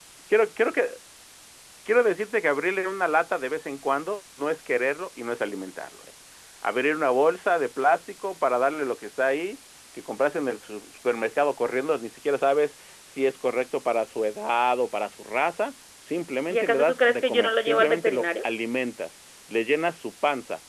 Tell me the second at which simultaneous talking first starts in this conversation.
16.5 s

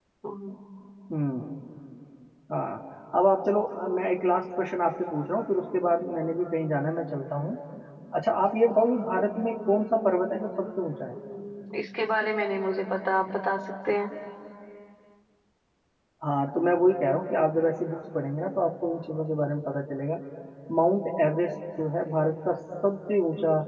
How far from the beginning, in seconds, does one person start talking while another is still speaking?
none

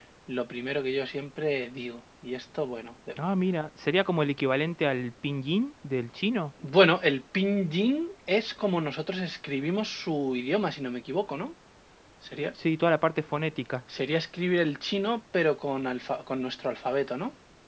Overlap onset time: none

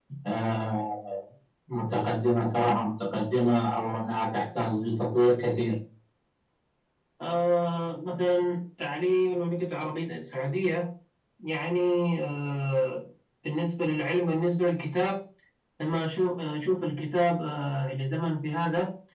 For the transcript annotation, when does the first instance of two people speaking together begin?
none

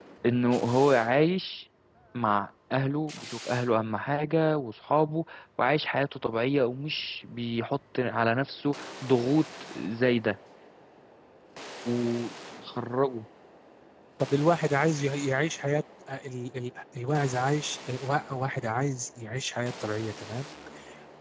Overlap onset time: none

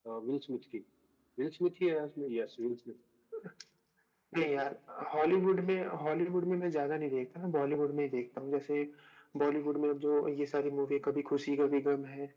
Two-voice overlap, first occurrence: none

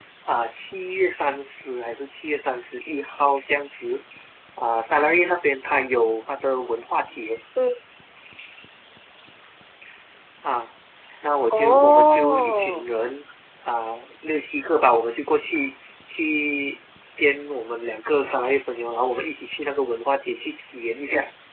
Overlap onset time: 11.5 s

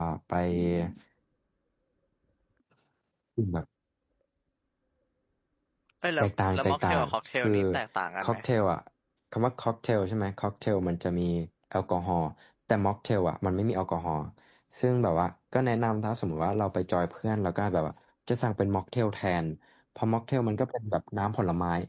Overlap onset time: 6.2 s

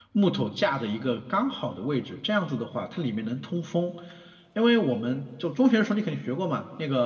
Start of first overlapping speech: none

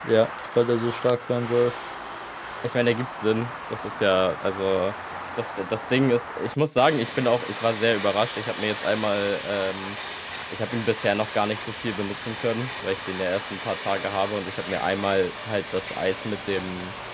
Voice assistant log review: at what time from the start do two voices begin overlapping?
none

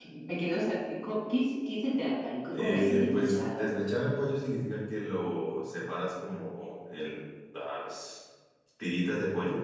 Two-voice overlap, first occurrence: 2.5 s

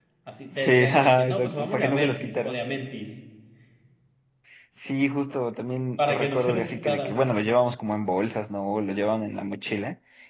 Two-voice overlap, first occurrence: 0.5 s

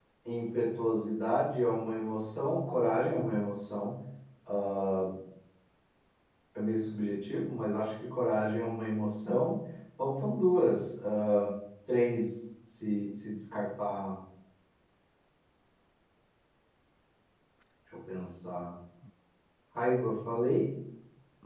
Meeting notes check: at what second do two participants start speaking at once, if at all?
none

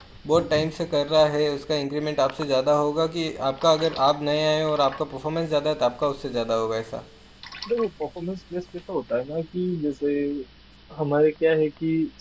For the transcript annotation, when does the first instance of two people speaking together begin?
none

